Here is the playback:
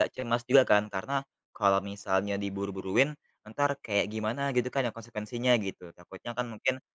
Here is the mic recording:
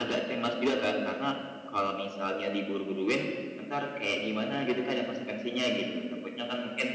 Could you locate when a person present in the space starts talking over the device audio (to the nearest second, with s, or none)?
none